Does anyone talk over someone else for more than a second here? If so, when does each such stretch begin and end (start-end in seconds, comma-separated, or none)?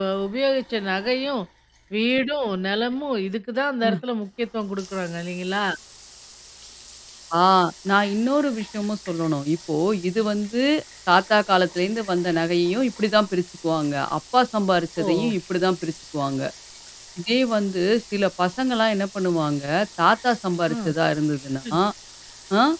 none